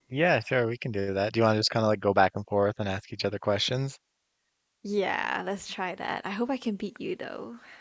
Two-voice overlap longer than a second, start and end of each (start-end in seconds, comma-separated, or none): none